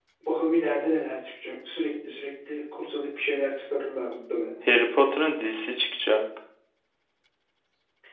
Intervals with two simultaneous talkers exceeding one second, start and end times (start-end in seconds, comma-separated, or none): none